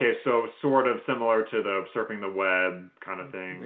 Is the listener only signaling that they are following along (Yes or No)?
No